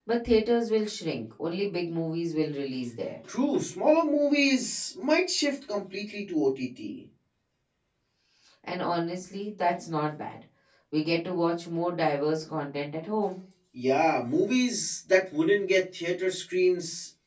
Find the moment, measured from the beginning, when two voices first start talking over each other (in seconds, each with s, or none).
none